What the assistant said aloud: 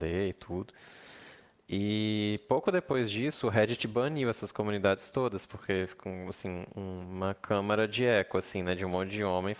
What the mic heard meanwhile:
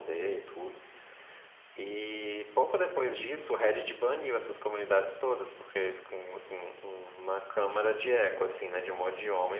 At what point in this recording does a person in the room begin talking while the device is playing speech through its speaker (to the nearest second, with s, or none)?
none